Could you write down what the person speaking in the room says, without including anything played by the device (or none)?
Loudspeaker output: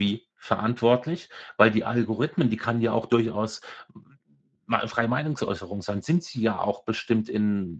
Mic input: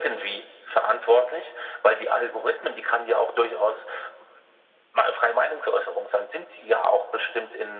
none